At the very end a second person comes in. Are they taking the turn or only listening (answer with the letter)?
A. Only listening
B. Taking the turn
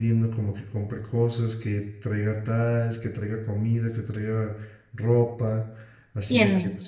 A